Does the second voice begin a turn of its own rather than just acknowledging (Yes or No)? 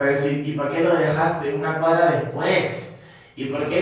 No